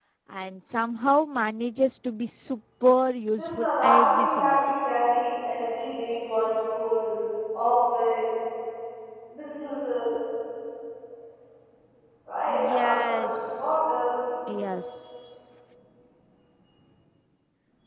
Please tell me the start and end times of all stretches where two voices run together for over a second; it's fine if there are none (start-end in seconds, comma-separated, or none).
3.4-4.6, 12.5-13.8